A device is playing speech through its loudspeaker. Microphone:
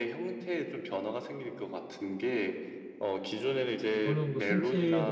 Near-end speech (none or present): present